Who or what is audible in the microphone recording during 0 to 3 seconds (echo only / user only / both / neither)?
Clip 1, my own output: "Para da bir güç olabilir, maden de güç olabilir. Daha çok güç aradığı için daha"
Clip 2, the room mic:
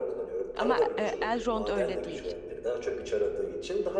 both